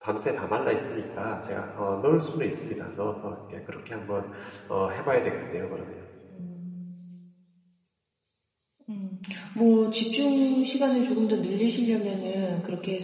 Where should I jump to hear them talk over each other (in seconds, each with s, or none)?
none